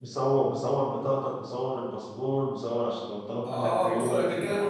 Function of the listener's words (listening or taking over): taking over